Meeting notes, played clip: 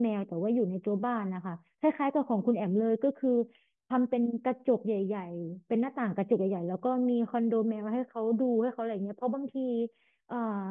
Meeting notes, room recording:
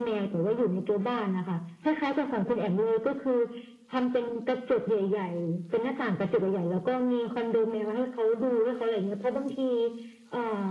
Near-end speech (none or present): none